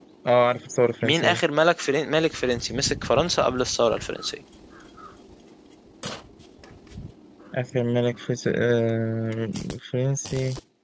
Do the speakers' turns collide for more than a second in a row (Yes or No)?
No